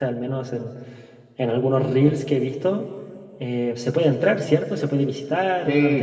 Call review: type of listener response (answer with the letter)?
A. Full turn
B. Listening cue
A